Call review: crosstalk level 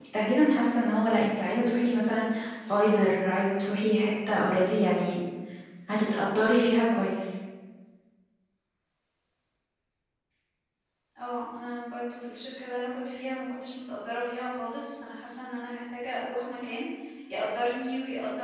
none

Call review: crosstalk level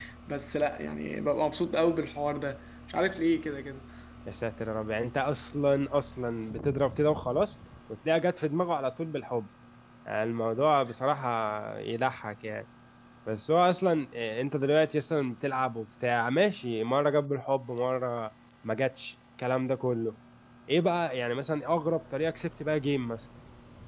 none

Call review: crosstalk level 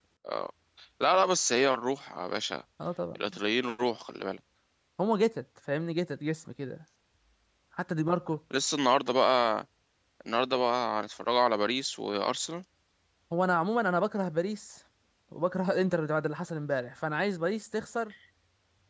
none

